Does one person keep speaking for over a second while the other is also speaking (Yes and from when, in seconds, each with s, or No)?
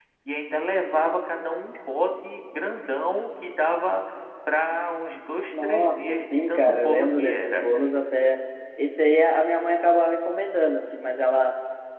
Yes, from 5.5 s